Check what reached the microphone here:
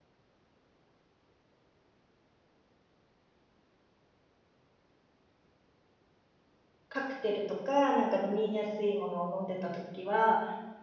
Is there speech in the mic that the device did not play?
Yes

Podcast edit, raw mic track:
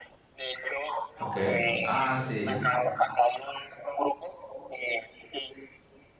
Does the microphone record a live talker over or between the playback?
Yes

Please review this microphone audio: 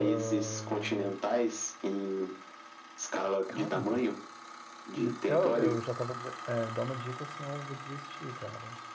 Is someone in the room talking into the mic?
Yes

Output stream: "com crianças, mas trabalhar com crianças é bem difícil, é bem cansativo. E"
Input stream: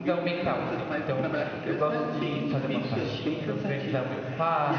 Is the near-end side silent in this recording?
No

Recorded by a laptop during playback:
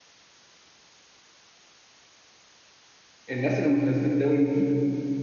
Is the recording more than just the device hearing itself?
Yes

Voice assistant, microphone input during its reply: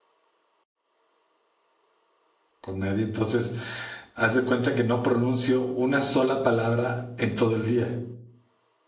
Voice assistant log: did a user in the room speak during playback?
Yes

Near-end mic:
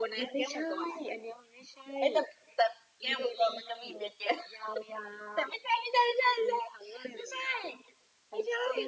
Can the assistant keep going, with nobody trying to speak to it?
Yes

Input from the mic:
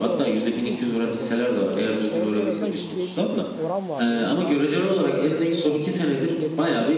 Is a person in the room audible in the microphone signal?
Yes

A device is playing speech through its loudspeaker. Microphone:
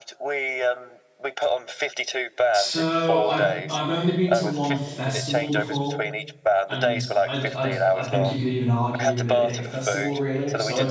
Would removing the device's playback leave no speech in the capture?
No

